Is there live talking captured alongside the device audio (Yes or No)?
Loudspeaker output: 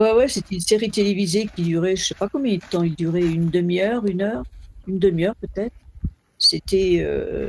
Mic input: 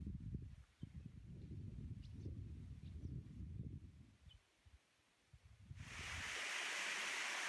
No